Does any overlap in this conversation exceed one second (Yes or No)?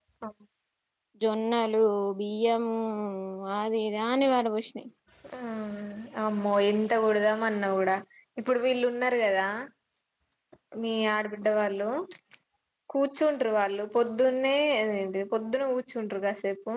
No